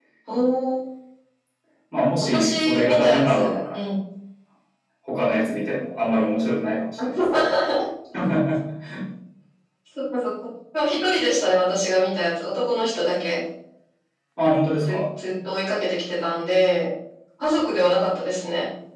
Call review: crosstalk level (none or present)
present